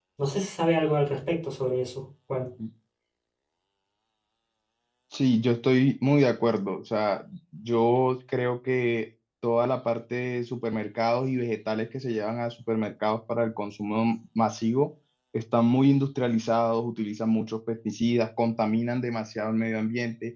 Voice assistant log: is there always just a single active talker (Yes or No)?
Yes